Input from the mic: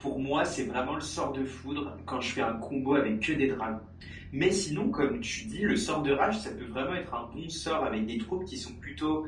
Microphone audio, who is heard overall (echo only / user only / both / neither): user only